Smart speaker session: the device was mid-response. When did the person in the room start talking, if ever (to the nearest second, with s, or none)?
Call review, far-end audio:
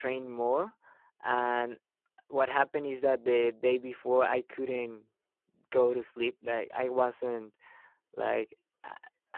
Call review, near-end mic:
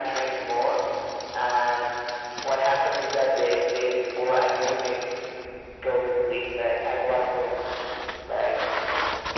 none